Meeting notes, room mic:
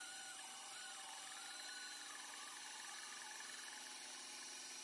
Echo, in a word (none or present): none